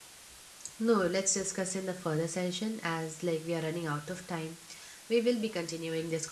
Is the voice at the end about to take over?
No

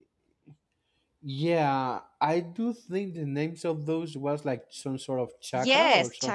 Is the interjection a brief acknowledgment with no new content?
No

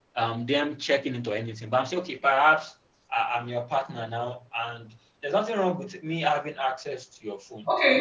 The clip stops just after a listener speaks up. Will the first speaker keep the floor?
No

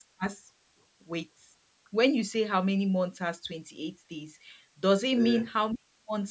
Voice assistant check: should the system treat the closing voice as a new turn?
No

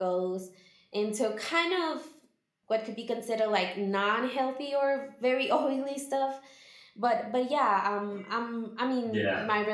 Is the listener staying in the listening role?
Yes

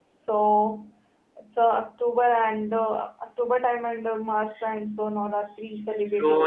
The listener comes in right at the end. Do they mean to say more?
Yes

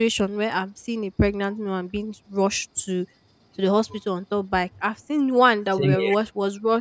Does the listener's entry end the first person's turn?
No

